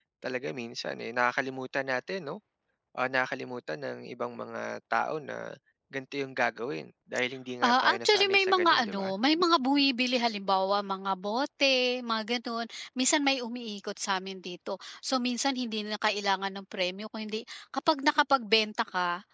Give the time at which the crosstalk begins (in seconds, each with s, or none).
7.6 s